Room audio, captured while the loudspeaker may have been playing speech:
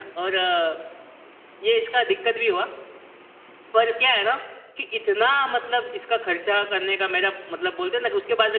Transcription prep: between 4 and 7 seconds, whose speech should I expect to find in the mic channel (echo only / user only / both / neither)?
echo only